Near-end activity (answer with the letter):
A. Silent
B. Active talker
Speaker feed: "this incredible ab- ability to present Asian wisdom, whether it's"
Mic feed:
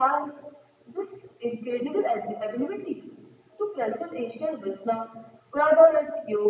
A